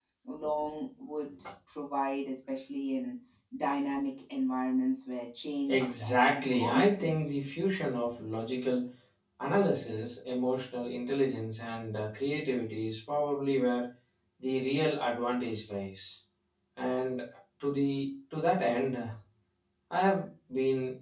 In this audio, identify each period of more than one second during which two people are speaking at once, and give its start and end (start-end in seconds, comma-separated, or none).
5.7-7.2